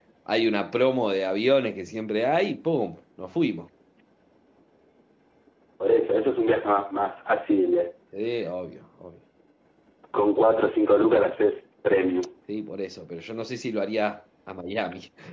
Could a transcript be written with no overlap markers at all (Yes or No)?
Yes